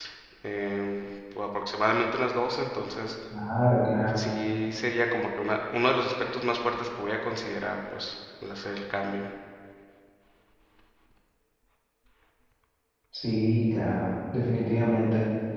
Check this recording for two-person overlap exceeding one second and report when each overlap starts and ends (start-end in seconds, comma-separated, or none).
none